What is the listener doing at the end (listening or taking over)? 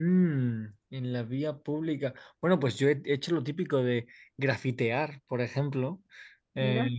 listening